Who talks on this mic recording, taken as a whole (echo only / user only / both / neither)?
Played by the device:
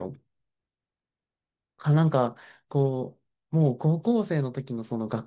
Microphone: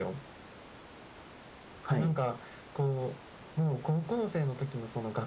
both